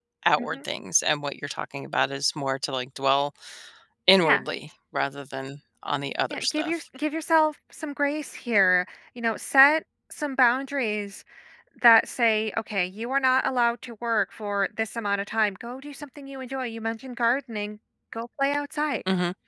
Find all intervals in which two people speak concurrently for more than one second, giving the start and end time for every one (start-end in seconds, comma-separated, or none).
none